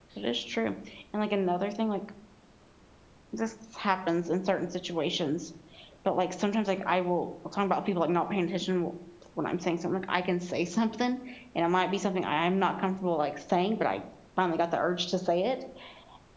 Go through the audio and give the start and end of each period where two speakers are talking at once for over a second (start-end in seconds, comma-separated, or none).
none